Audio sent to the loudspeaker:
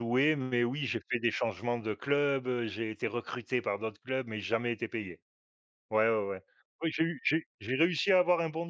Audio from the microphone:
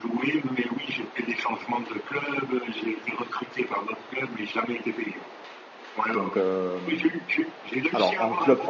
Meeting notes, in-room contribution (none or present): present